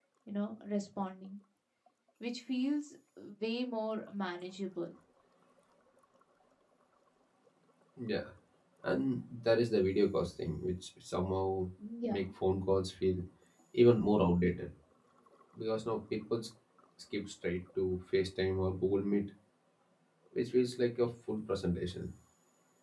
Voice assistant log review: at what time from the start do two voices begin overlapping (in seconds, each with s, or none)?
none